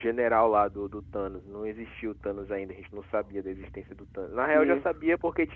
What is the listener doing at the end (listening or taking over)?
listening